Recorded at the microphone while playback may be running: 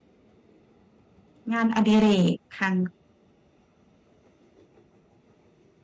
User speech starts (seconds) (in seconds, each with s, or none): 1.5 s